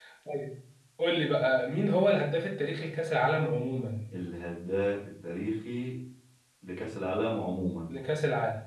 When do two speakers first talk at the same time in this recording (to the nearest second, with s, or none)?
none